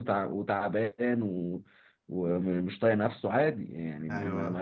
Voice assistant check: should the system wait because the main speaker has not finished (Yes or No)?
Yes